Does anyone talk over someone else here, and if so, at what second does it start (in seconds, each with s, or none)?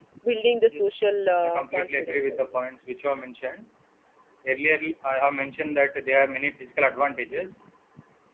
0.7 s